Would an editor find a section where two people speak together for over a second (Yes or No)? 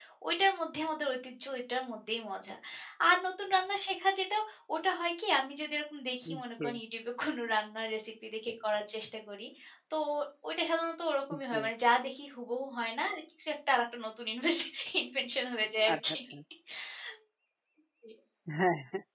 No